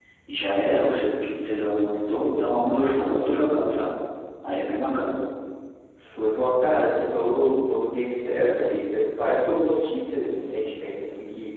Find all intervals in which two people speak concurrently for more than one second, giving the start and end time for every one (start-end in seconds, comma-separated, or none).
none